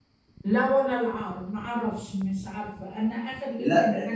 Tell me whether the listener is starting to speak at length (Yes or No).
Yes